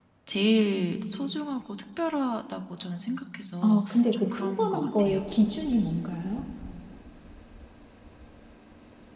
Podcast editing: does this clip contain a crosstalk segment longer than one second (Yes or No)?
Yes